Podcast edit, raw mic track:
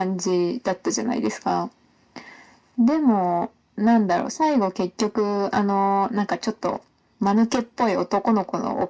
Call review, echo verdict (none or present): present